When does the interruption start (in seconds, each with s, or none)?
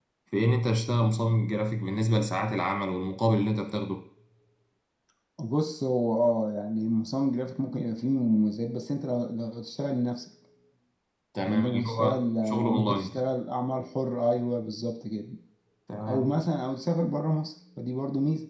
11.4 s